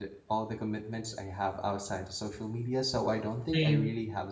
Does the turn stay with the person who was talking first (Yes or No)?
Yes